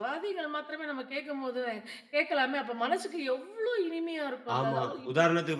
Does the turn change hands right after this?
Yes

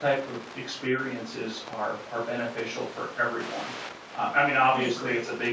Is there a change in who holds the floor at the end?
No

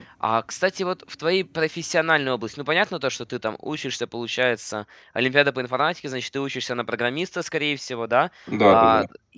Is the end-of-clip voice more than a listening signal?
No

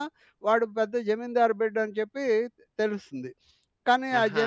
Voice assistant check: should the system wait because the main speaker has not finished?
Yes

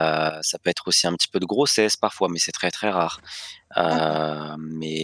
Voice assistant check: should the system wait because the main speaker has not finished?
Yes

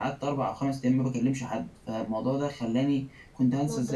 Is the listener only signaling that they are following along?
Yes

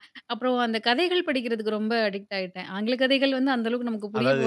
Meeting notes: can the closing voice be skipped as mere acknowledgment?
No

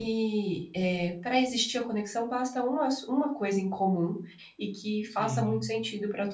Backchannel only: Yes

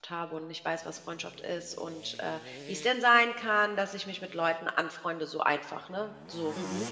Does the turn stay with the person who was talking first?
Yes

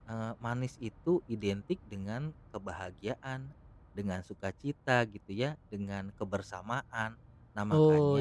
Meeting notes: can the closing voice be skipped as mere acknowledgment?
No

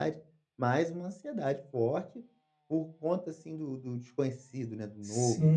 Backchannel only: No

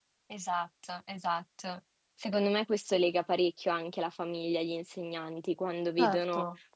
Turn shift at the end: No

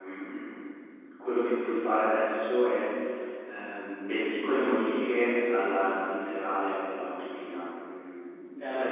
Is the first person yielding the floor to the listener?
No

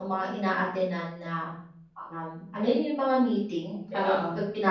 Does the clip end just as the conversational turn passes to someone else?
No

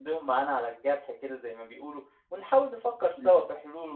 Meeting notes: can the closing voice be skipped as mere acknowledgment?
Yes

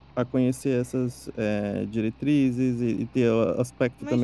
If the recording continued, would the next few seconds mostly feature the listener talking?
Yes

